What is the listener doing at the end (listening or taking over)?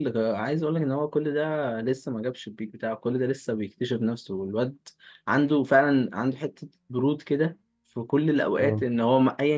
listening